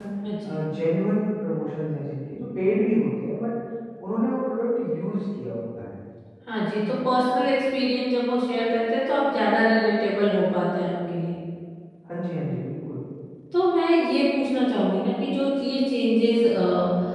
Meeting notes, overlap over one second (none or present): none